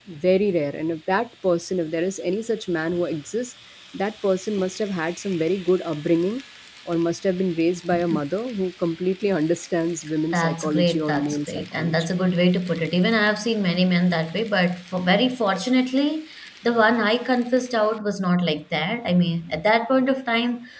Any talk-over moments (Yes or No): Yes